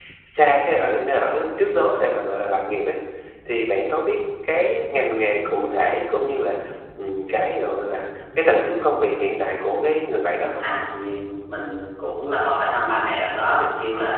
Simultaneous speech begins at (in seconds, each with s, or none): none